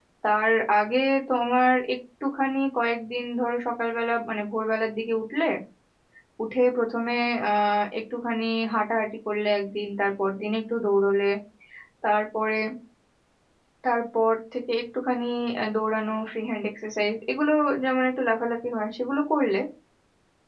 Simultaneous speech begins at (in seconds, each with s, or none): none